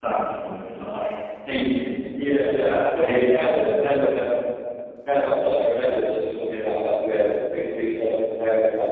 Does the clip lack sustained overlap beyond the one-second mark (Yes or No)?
No